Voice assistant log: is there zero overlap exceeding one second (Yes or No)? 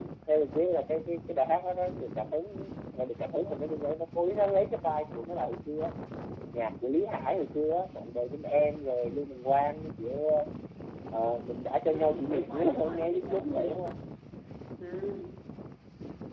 No